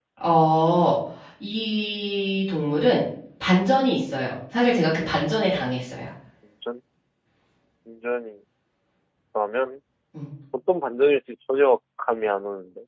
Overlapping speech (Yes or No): No